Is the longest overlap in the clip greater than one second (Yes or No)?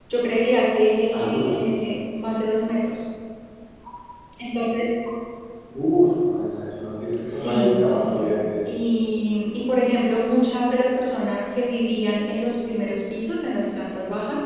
Yes